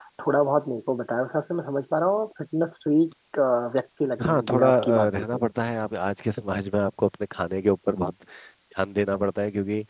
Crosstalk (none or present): present